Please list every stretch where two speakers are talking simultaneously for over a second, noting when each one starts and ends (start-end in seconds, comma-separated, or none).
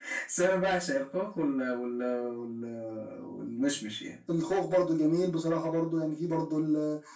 none